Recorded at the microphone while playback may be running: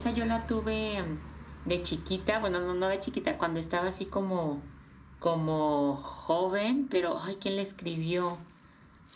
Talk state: echo only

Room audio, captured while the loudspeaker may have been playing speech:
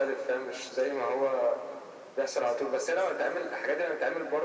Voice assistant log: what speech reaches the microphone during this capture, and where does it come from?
echo only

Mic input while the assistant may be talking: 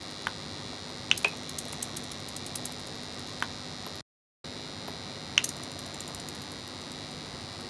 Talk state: neither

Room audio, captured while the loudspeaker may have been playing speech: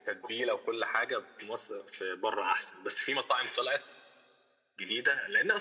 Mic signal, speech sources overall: echo only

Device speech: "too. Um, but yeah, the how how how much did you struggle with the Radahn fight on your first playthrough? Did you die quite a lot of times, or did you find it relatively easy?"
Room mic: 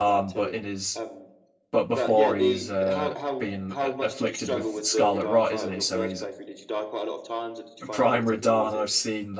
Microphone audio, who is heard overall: both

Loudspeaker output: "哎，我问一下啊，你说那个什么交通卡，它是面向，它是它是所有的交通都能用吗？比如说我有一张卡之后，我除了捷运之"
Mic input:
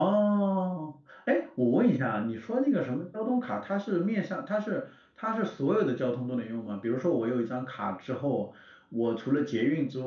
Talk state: echo only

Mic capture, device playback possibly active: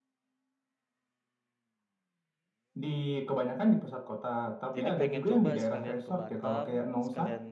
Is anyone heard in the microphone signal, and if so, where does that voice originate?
both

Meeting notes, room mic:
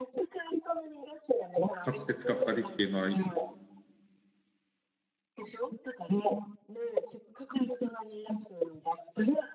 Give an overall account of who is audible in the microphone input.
both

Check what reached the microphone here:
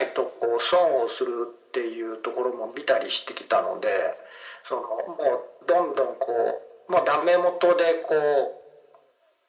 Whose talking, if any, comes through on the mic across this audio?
echo only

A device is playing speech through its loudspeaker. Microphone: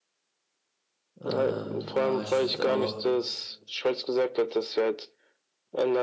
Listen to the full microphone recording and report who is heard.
both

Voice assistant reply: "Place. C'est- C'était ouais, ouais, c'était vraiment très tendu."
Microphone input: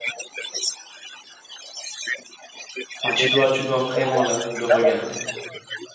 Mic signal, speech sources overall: both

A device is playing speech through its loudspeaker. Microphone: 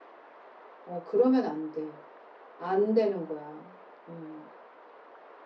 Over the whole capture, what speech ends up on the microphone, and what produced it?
echo only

